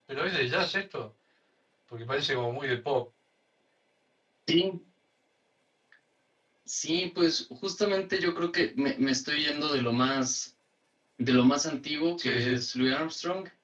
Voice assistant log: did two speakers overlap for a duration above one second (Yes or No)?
No